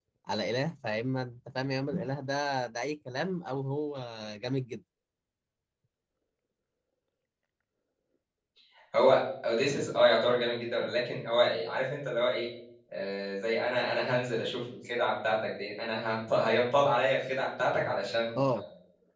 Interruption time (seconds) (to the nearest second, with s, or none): none